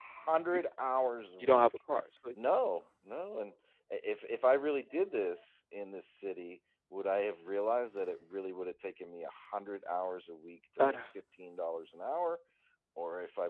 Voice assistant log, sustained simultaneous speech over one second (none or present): none